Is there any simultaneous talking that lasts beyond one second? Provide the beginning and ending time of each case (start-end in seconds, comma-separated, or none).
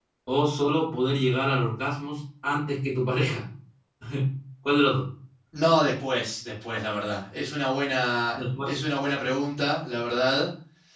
none